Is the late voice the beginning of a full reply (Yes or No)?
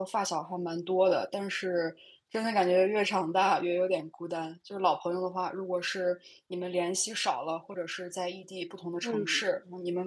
No